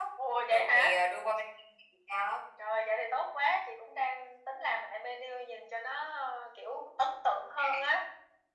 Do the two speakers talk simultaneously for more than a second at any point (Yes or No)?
No